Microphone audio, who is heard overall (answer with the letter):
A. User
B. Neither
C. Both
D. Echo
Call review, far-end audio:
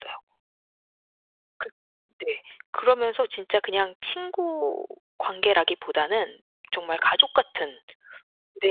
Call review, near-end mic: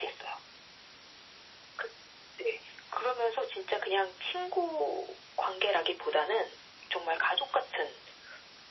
D